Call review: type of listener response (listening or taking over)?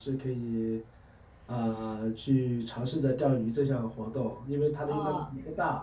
listening